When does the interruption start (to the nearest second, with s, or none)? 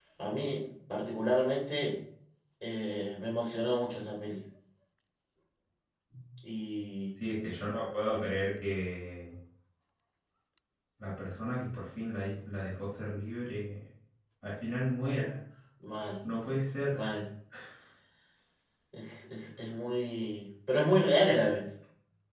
none